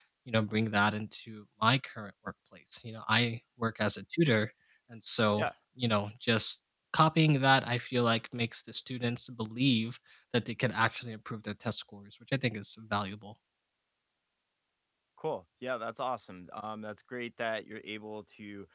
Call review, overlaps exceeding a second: none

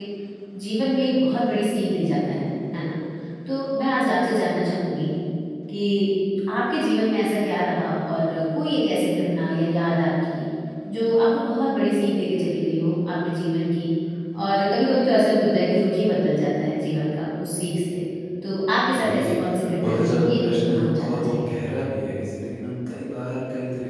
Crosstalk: present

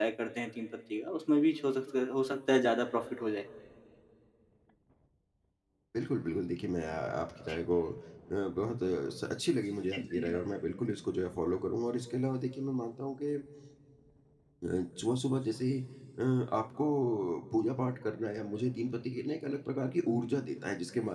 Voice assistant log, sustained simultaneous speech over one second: none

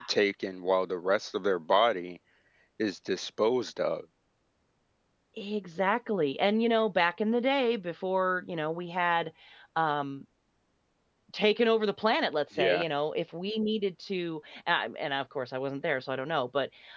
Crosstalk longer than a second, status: none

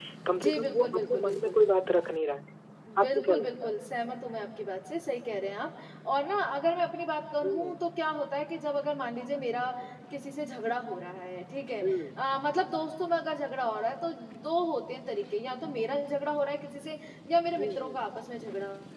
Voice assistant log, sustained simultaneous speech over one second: present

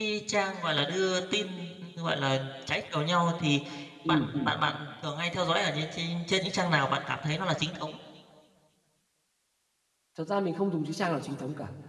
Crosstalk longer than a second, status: none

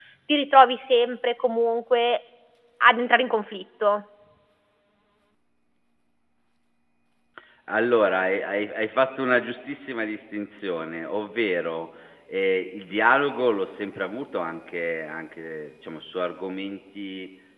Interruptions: none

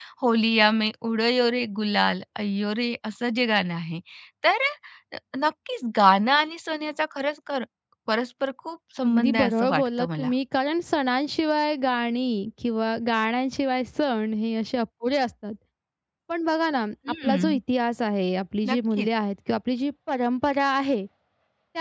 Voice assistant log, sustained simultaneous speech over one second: present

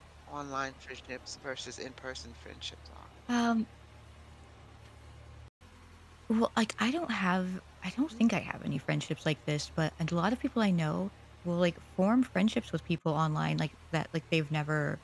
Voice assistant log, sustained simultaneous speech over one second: none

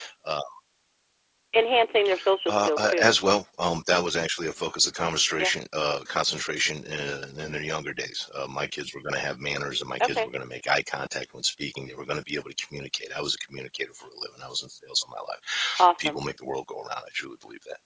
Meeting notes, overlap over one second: none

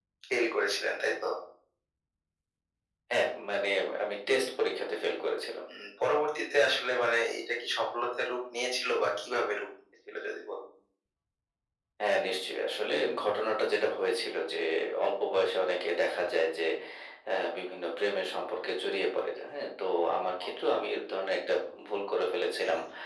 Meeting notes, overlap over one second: none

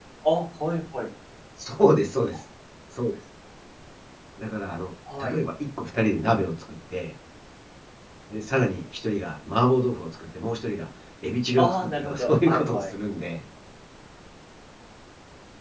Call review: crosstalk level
present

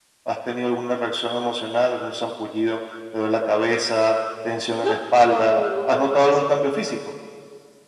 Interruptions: present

